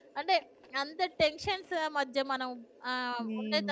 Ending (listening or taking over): listening